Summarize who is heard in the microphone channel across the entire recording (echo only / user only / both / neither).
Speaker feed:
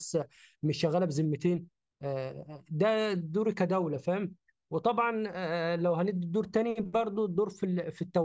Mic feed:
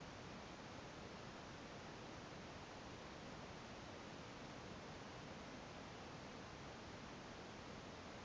neither